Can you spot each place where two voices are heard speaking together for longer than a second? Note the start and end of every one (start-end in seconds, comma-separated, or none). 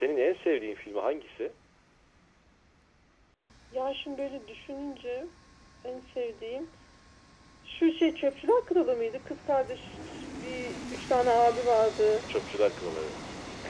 none